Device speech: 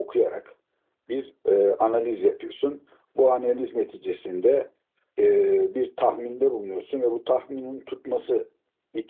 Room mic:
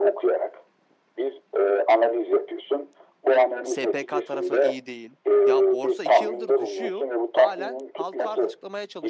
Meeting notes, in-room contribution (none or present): present